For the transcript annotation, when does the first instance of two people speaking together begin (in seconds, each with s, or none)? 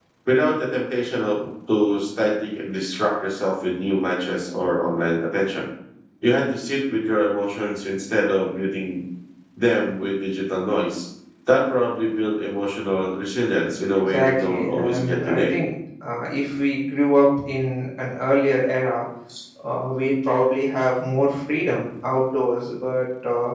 14.0 s